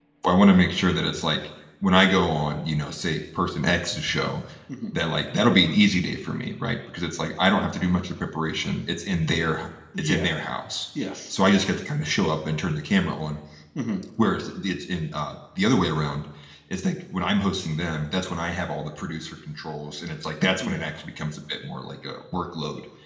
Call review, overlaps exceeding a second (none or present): none